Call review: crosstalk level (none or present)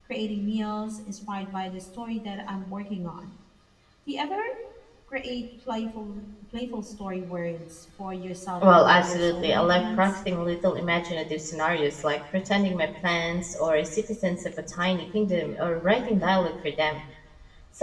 present